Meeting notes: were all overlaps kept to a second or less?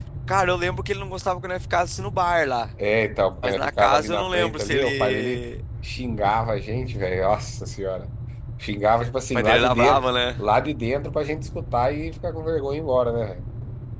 No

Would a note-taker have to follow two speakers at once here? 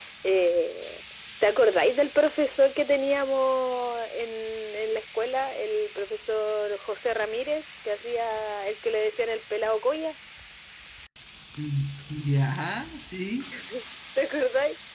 No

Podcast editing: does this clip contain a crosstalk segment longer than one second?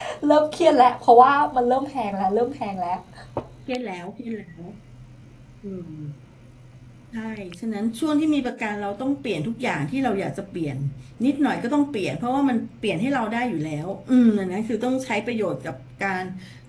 No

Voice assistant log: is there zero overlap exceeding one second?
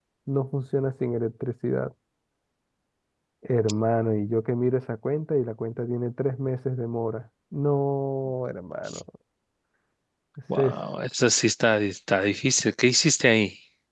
Yes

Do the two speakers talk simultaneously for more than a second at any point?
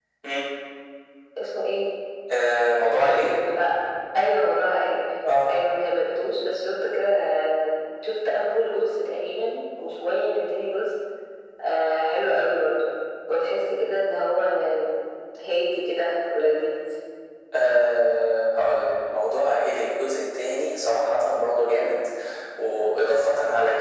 No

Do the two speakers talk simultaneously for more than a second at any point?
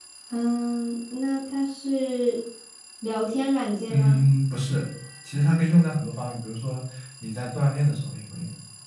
No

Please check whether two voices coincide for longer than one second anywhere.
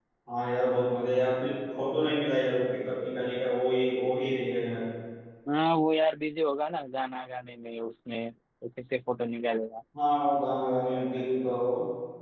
No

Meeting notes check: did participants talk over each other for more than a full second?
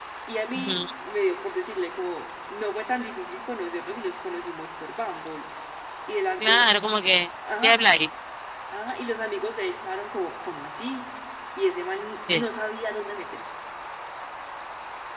No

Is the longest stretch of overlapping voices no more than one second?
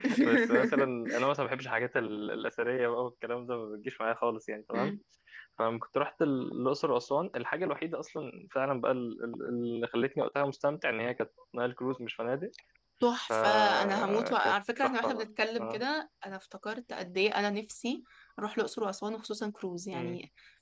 No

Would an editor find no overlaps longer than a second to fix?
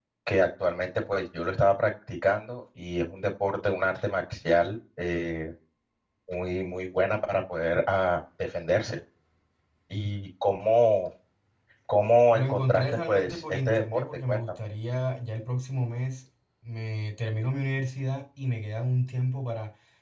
No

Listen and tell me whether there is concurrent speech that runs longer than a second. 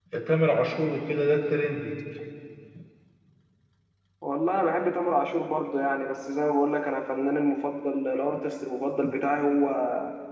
No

